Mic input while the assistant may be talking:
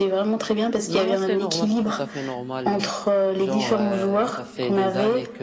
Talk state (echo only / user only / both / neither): both